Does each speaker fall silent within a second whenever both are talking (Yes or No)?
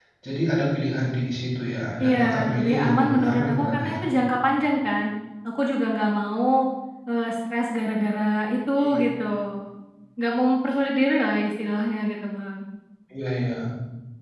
No